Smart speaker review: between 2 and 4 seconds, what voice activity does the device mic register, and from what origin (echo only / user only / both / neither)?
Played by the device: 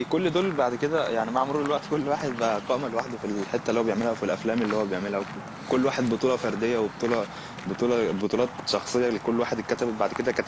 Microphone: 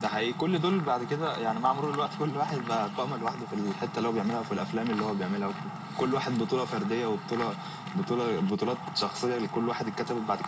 echo only